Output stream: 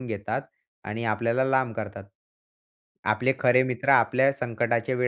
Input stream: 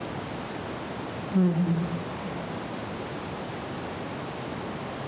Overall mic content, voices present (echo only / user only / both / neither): user only